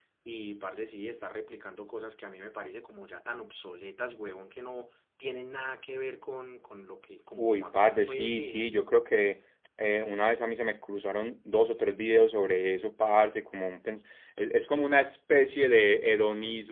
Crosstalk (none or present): present